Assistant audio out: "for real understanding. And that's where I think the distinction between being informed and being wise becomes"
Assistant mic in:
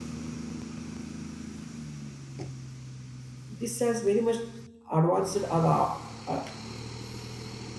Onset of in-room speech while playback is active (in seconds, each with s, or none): 3.5 s